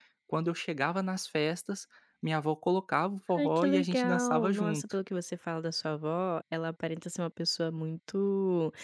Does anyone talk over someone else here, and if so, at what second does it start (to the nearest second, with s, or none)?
3 s